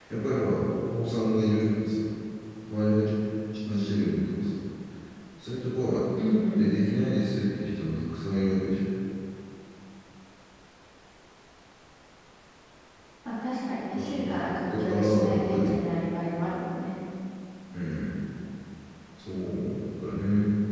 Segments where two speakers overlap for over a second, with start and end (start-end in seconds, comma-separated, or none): 14.0-15.8